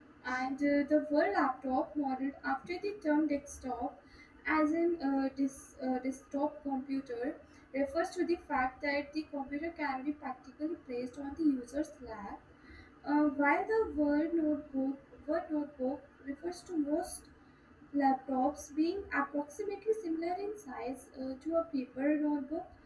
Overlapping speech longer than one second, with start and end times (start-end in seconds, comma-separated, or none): none